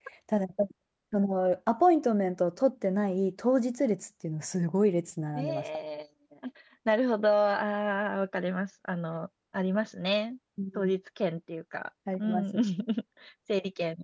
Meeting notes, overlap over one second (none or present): none